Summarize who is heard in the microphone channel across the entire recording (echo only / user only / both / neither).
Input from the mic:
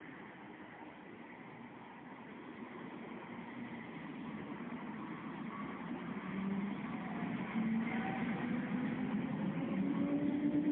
neither